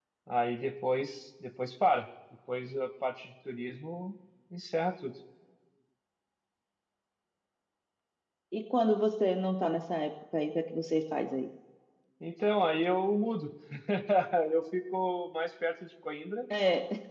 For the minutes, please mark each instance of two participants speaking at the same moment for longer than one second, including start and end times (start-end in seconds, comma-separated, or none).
none